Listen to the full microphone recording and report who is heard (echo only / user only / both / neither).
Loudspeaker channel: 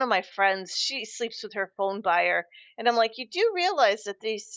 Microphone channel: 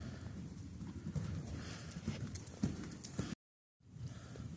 neither